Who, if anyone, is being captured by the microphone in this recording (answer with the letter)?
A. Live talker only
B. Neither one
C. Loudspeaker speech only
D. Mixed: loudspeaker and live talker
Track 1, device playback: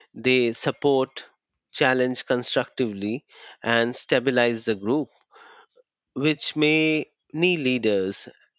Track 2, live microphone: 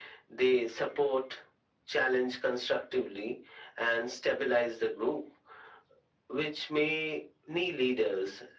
C